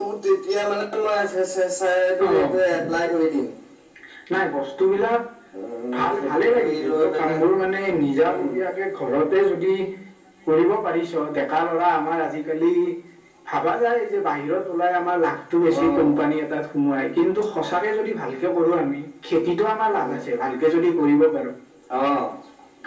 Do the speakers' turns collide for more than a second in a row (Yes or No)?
Yes